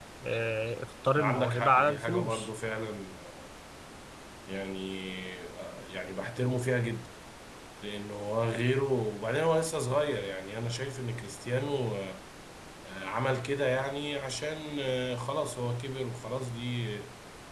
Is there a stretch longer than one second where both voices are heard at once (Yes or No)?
Yes